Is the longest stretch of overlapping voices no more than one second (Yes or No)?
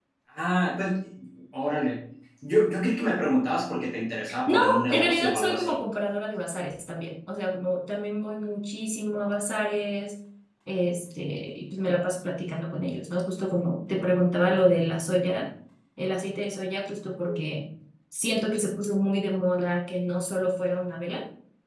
No